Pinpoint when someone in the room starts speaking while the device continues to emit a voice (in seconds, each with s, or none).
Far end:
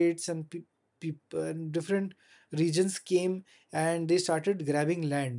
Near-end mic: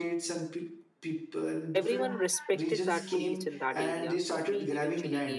1.7 s